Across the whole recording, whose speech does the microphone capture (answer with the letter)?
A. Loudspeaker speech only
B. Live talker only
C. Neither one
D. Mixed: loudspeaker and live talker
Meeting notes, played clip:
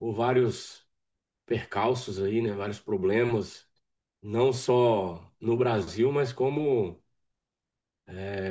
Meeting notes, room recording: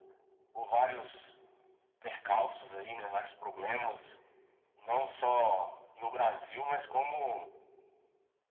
A